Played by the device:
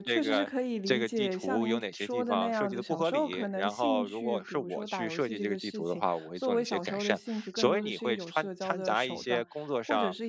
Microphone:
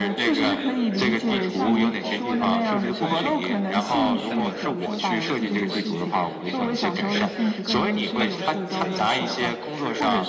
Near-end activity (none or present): present